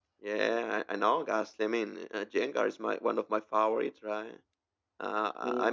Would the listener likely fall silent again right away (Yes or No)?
Yes